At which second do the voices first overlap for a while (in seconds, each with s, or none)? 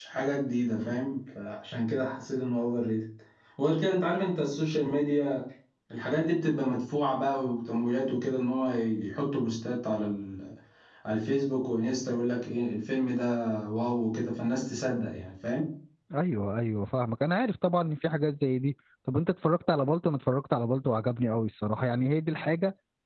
none